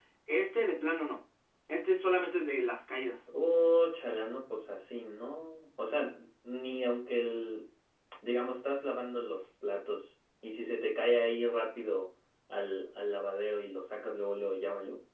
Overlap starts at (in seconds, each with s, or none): none